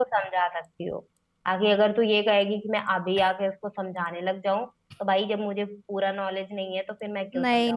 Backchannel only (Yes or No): No